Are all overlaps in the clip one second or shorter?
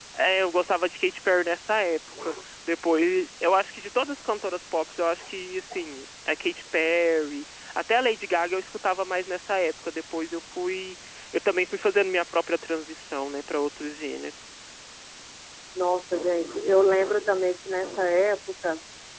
Yes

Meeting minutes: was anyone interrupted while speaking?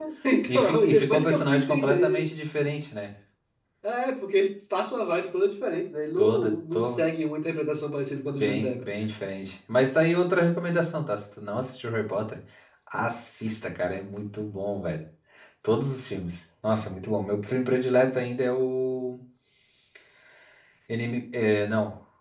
Yes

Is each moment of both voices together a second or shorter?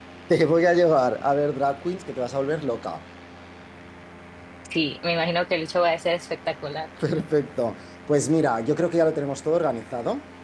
Yes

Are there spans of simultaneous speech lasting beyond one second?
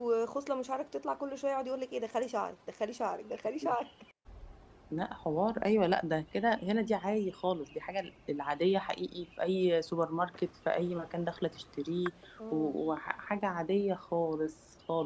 No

